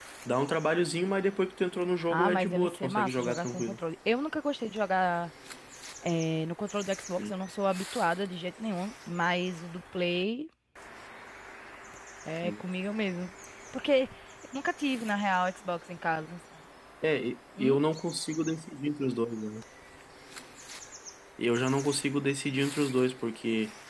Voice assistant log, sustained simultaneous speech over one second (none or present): present